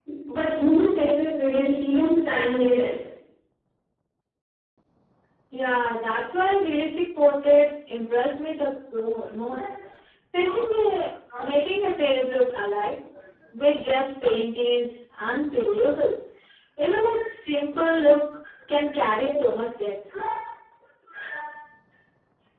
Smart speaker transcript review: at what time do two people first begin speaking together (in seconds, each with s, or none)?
none